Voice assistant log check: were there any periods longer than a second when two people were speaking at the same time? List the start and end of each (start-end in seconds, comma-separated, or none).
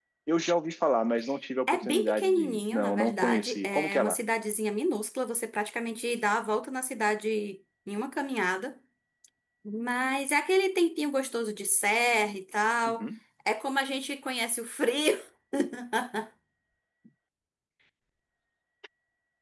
1.7-4.2